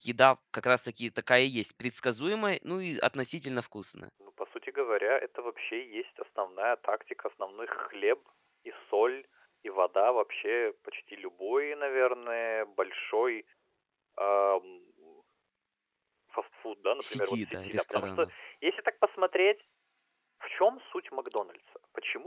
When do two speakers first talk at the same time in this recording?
17 s

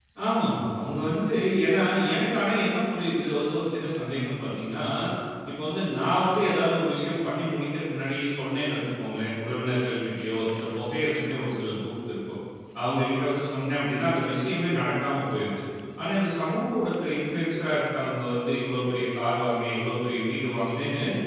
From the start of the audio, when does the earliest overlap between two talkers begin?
none

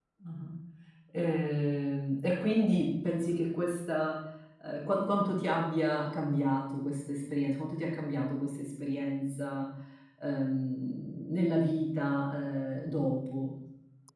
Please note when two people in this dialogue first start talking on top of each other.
none

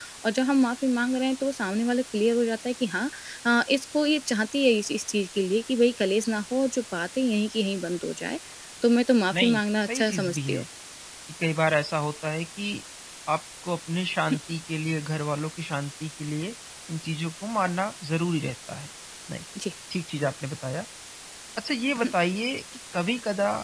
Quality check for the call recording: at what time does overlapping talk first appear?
9 s

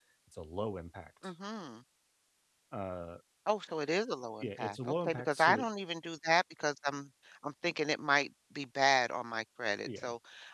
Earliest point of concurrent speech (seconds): 4 s

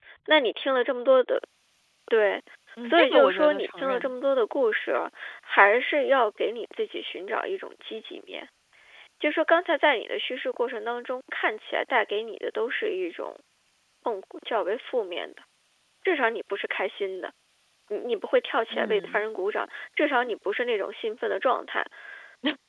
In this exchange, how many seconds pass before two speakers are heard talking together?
3 s

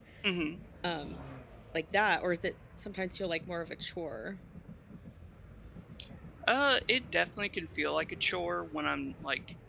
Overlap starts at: none

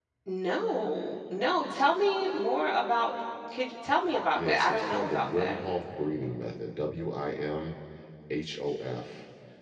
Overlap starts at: 4 s

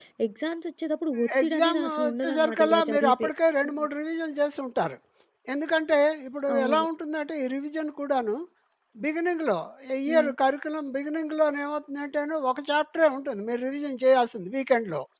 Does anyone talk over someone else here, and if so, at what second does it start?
1 s

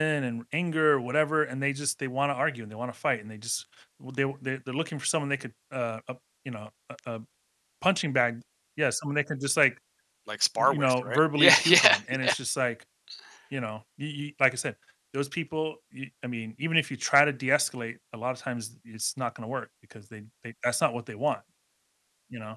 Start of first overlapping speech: 11 s

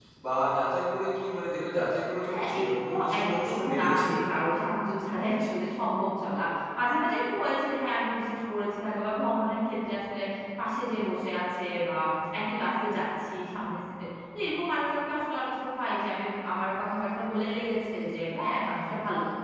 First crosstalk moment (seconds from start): 2 s

